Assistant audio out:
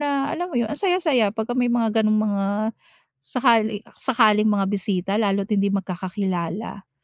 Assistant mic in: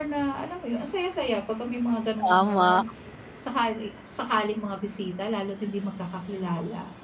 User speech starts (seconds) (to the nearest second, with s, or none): 2 s